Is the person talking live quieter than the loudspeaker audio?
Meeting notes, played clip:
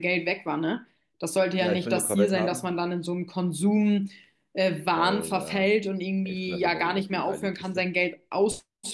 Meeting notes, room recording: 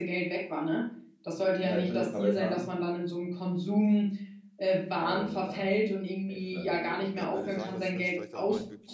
Yes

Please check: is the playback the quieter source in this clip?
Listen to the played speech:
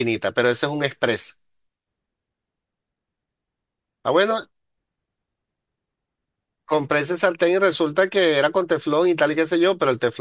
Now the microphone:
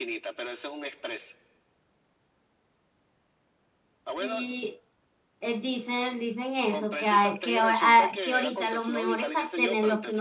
Yes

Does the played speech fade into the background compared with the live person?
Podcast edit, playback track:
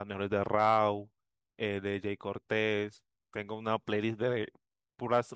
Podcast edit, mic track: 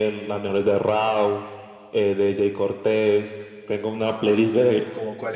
No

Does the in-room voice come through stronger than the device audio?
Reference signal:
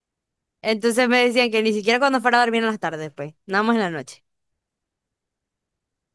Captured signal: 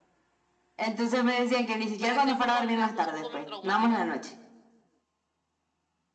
No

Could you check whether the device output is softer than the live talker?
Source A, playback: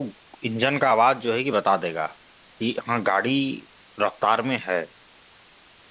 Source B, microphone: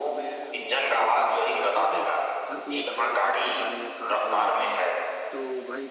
No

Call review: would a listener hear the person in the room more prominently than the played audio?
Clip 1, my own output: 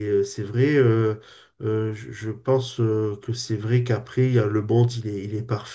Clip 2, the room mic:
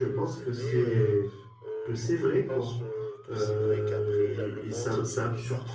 Yes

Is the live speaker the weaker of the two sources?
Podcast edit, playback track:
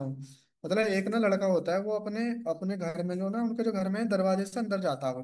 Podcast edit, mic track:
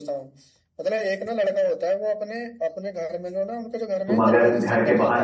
No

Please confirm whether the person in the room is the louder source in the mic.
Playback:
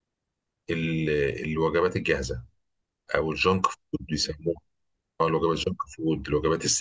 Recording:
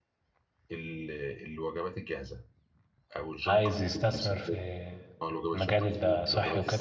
Yes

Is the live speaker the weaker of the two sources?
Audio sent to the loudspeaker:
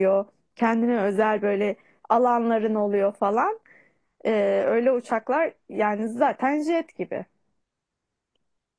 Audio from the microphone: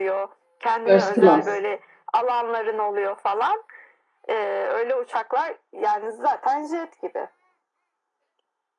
No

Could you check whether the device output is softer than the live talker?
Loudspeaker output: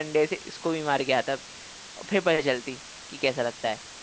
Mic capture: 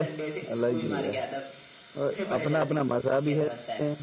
Yes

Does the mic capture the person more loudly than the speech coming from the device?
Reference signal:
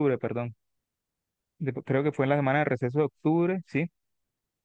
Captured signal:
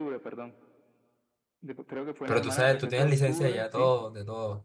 Yes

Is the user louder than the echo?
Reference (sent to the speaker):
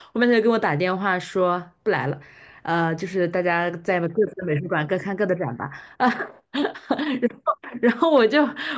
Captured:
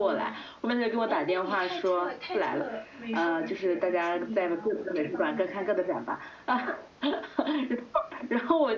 No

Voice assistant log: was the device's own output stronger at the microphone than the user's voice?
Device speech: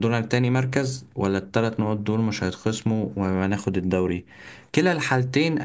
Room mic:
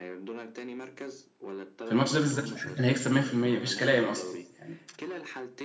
No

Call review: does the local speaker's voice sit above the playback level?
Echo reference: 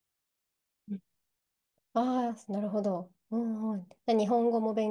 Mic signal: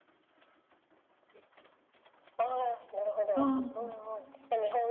Yes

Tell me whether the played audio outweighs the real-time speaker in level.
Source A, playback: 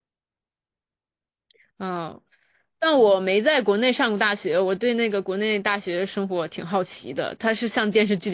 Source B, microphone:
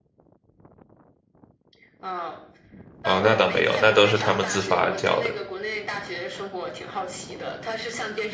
No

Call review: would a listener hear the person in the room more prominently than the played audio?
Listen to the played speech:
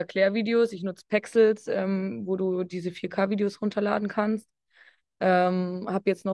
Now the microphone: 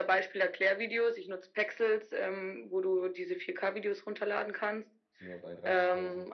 No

